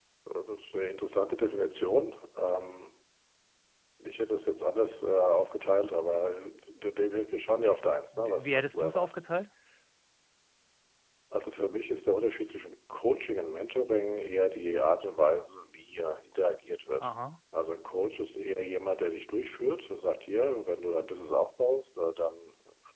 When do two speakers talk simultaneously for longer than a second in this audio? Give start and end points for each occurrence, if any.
7.8-9.2

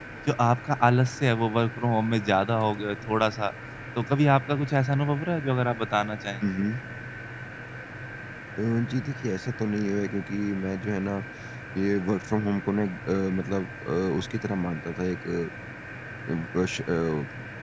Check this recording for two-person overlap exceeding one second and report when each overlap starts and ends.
none

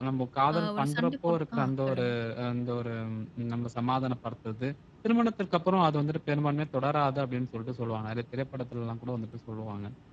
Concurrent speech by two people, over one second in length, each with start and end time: 0.6-2.1

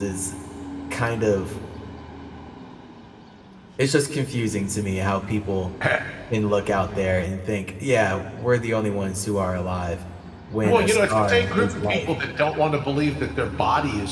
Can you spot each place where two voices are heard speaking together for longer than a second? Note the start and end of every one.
10.6-12.1

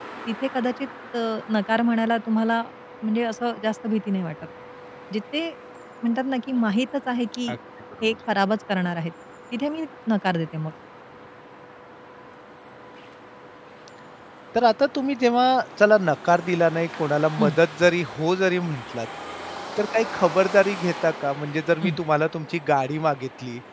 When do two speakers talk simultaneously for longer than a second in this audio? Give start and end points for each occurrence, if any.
none

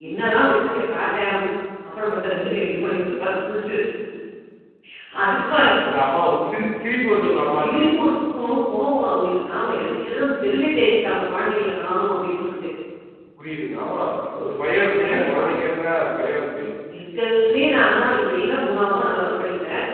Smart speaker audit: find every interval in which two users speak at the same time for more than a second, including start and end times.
none

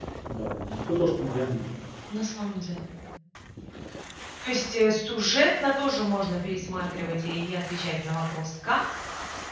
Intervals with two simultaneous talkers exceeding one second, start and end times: none

